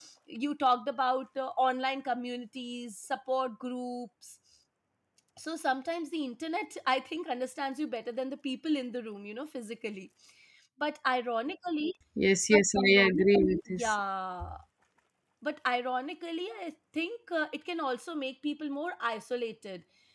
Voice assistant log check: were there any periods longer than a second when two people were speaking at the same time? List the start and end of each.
none

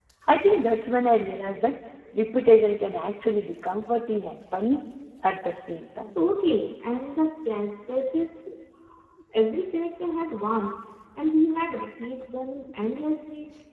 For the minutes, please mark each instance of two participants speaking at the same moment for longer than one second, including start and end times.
none

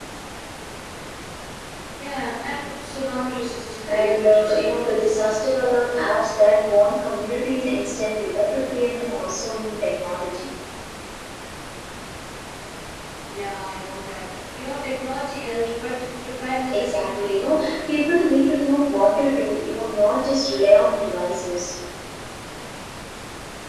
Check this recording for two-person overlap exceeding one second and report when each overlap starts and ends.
3.9-5.1, 16.7-18.2

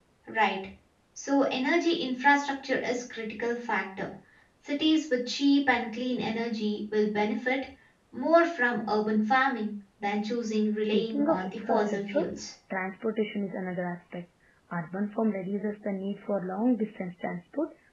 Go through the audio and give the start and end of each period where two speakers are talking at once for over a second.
10.9-12.3

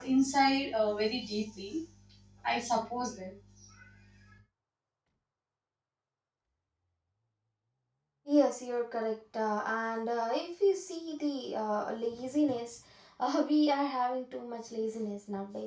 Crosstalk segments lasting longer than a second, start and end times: none

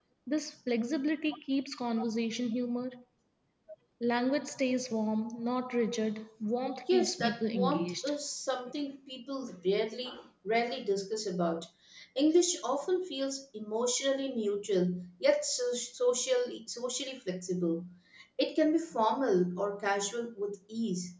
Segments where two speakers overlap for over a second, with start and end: 6.9-8.1

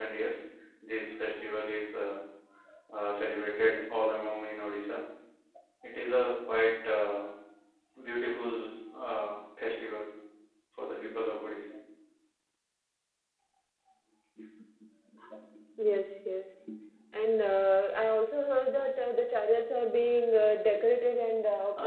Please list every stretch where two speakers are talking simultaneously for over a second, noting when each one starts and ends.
none

